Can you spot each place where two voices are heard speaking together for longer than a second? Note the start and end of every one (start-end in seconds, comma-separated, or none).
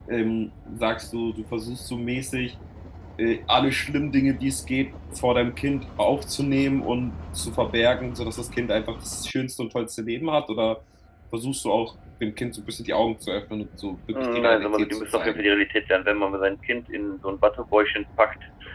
14.1-15.4